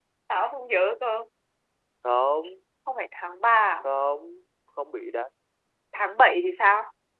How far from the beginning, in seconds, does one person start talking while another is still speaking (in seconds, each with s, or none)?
none